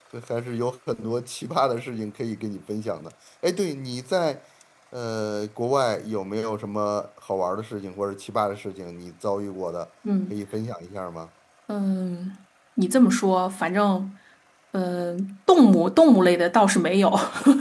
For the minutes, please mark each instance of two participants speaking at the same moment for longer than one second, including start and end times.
none

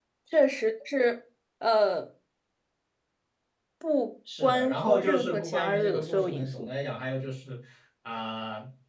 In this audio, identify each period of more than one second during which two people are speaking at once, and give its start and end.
4.4-6.7

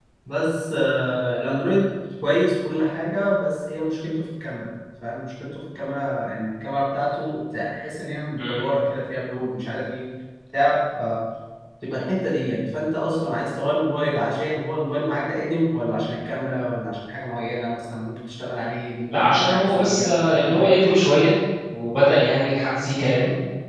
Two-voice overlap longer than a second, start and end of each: 19.1-20.8

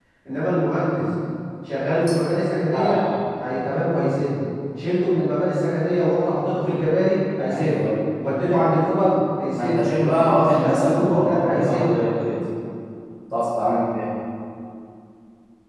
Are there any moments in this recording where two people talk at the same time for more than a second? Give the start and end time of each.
9.5-12.0

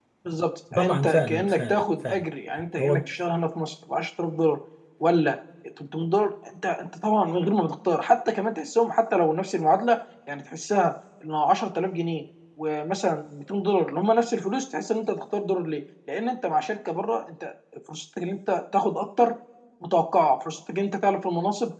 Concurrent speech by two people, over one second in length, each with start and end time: 0.8-2.2

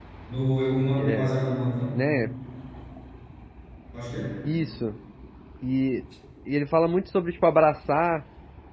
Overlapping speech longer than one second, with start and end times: none

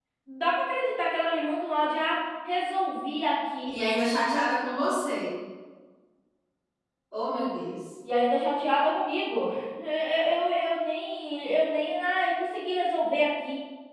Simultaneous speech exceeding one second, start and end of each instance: none

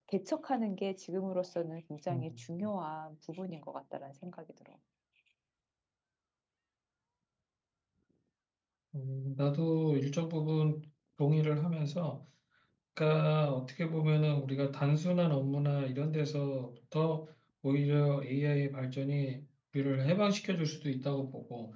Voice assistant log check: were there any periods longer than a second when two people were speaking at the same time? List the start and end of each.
none

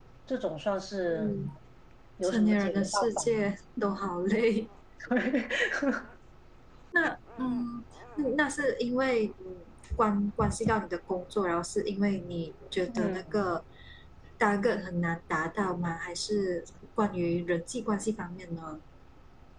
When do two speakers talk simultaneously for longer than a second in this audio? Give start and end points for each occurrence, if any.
2.2-3.4

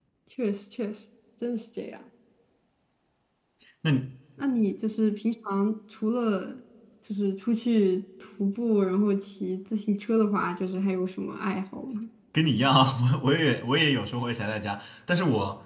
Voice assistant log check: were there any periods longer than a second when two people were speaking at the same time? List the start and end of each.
none

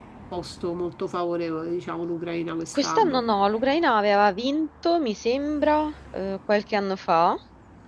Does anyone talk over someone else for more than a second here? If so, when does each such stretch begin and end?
none

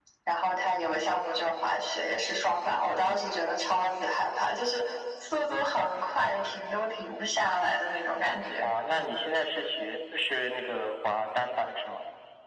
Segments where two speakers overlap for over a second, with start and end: none

